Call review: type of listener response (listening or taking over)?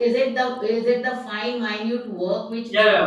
taking over